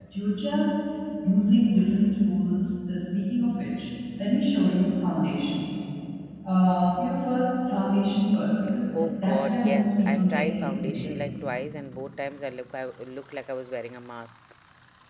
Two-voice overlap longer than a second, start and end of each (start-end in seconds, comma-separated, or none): 9.2-11.1